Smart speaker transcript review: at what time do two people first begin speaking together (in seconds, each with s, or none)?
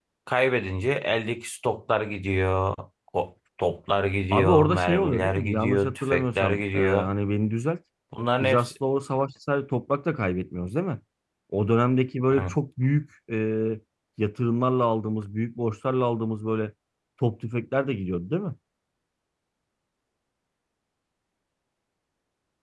4.3 s